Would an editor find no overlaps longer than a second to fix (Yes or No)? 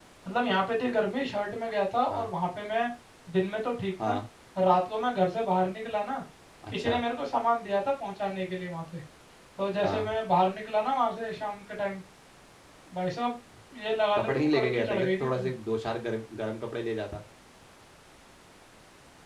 No